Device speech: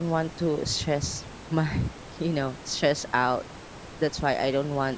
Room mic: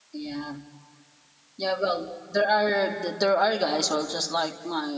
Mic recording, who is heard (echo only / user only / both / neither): user only